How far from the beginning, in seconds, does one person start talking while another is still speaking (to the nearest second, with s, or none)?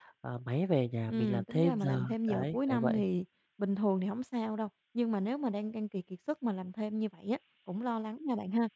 1 s